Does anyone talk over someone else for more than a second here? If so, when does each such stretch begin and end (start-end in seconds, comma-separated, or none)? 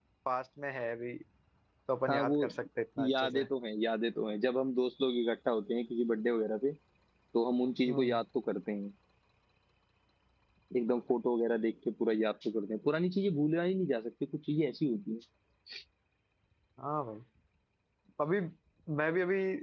none